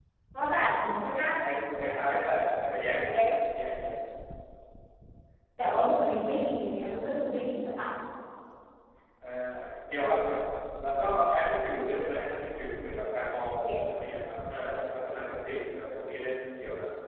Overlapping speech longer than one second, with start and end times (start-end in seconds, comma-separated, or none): none